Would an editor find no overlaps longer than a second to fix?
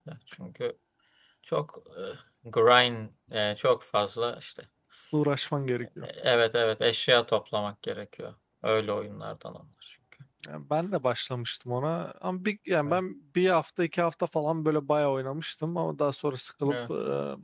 Yes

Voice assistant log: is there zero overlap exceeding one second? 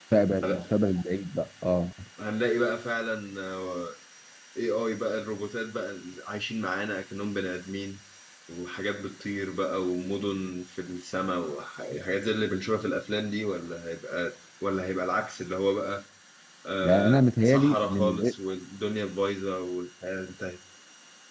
No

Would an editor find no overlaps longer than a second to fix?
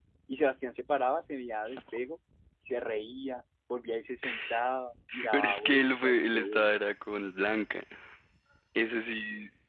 No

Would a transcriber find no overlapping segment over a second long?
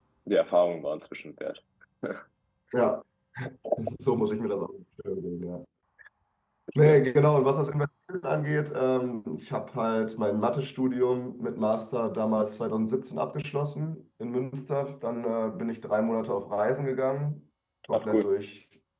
Yes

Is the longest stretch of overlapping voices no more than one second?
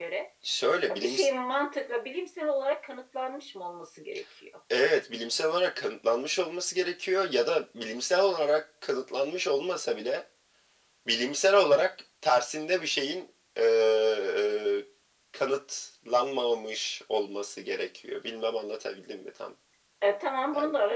Yes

